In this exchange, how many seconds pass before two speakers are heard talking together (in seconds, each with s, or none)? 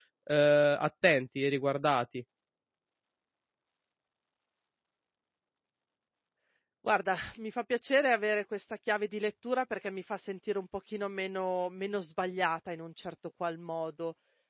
none